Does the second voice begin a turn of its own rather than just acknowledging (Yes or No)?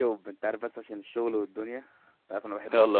Yes